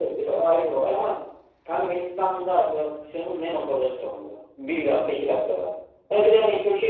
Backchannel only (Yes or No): Yes